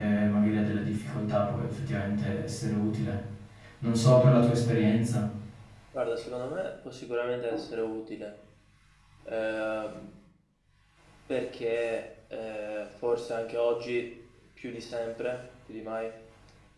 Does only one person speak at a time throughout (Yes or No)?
Yes